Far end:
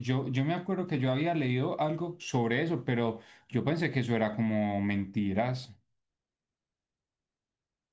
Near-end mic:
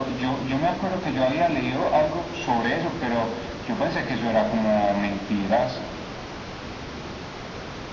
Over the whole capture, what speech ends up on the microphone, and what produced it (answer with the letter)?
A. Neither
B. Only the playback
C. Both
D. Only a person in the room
B